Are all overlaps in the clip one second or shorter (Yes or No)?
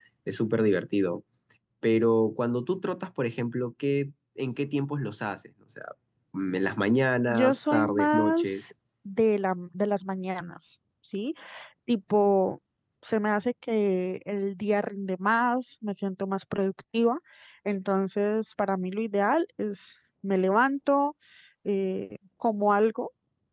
No